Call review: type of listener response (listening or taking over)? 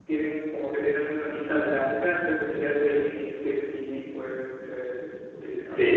taking over